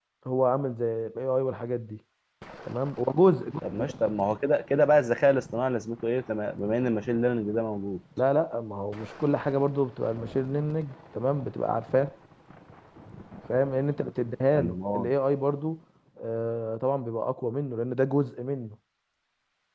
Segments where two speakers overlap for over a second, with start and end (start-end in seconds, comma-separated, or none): none